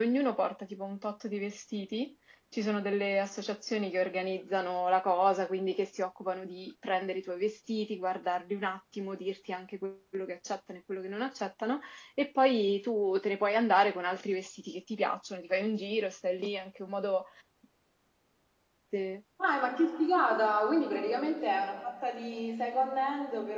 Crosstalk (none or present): none